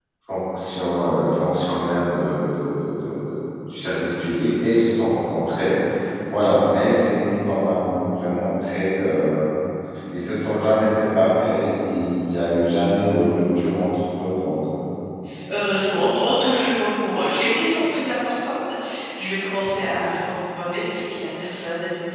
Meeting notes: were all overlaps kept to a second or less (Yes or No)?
Yes